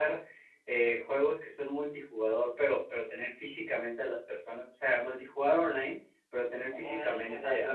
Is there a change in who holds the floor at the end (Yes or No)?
No